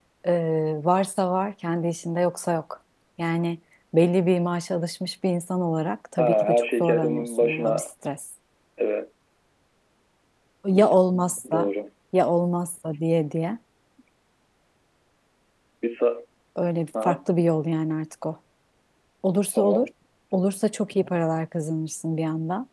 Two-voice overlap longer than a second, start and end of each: 6.2-7.8

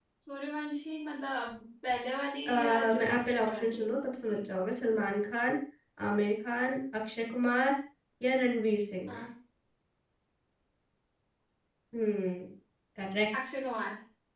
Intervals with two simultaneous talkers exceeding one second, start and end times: 2.5-4.4

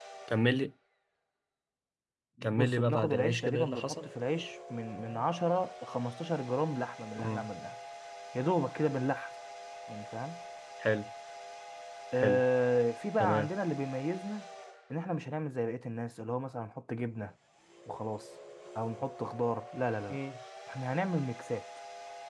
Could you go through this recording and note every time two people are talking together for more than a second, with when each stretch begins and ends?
2.4-4.0

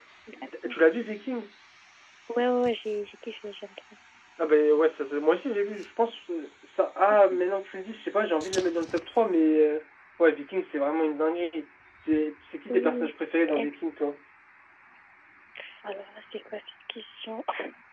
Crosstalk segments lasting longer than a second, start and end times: none

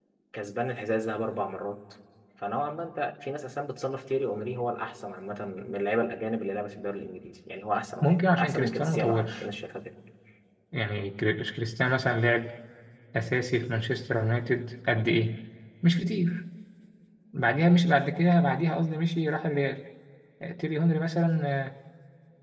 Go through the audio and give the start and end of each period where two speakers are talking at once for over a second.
8.0-9.4

